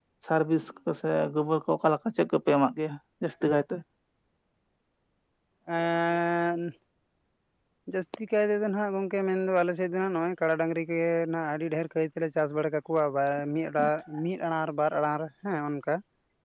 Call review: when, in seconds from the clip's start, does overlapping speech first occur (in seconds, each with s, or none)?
none